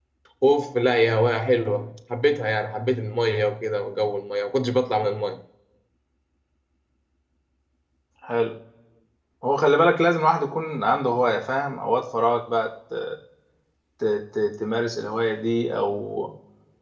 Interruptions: none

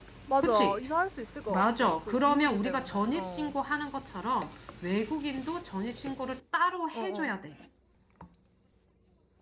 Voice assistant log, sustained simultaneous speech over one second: present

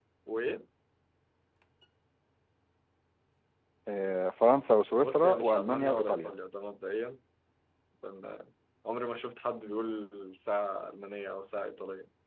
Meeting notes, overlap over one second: present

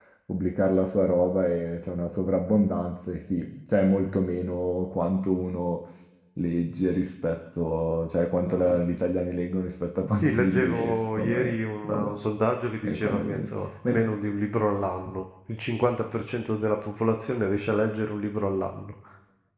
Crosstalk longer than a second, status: present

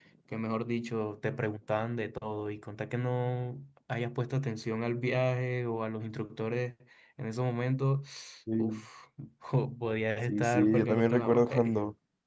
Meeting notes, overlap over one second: present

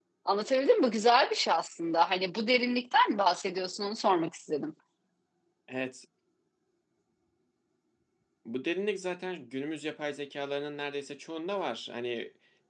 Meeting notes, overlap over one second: none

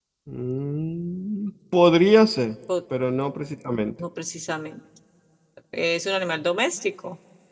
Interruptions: none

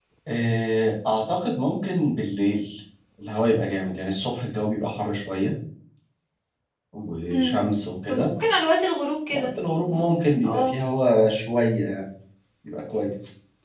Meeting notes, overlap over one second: none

